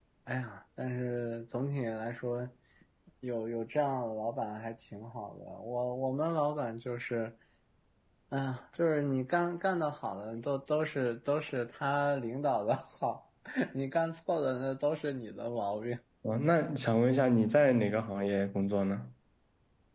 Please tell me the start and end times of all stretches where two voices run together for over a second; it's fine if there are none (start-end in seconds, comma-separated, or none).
none